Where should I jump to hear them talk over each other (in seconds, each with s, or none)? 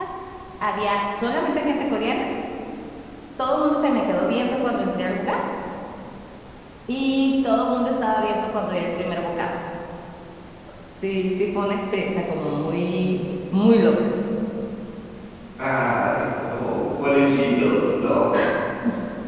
none